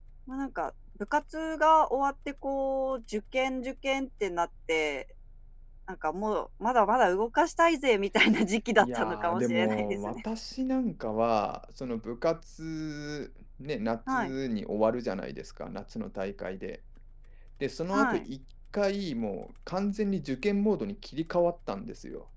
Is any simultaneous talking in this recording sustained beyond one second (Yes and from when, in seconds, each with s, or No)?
Yes, from 8.8 s